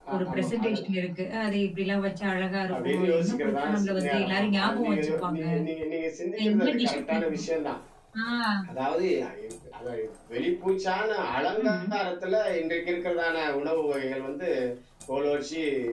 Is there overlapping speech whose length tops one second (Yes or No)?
Yes